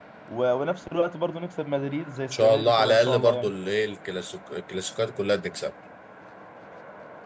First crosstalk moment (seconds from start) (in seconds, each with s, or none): 2.3 s